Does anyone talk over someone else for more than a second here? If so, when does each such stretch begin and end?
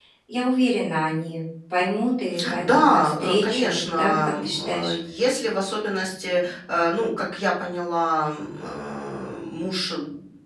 2.6-4.9

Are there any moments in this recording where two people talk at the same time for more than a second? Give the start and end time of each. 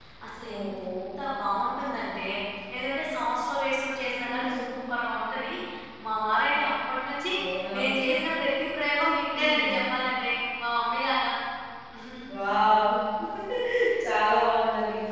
none

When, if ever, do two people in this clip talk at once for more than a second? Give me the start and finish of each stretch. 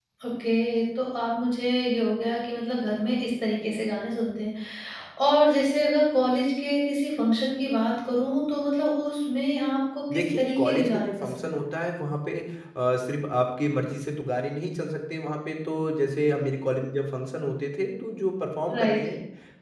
10.1-11.4

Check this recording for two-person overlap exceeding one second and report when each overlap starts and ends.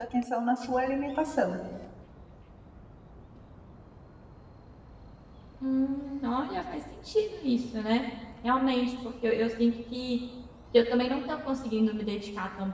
none

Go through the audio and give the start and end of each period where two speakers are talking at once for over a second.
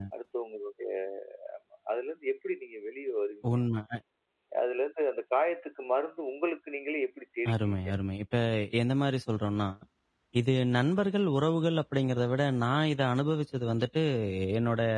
none

